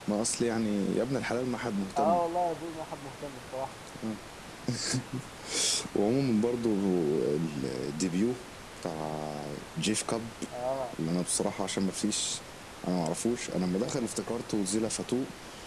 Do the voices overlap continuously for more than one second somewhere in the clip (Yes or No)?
No